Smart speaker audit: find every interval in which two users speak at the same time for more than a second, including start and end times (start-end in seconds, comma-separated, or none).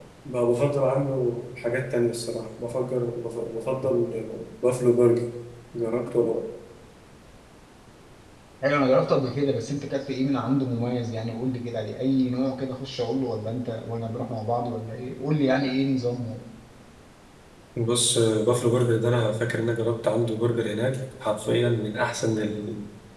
none